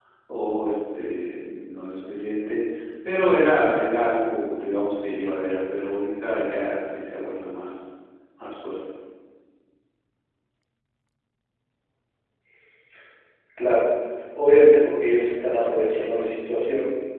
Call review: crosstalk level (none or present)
none